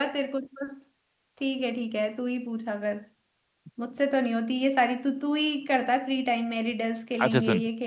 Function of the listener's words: taking over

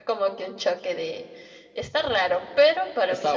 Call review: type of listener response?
listening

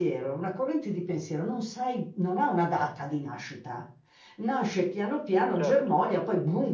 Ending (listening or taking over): listening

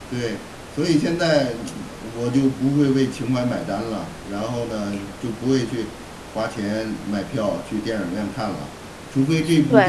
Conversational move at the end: listening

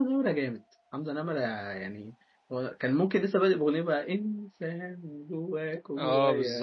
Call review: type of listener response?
taking over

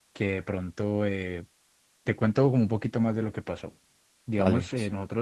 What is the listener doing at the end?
listening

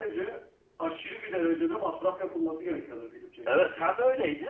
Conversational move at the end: taking over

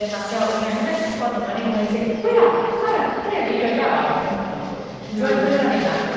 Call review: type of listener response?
listening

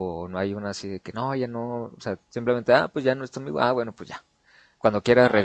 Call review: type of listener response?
listening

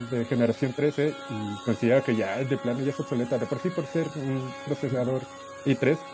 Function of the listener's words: listening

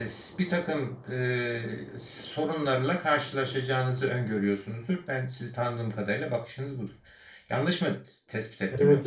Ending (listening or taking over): taking over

